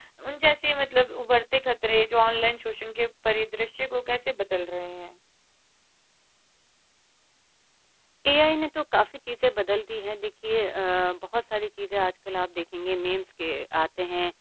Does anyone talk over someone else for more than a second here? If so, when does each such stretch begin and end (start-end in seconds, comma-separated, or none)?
none